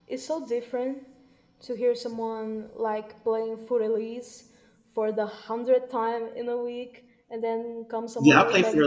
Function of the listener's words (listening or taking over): taking over